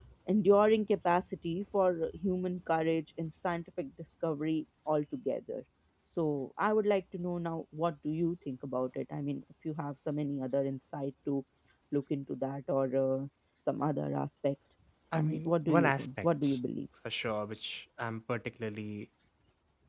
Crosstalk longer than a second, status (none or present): present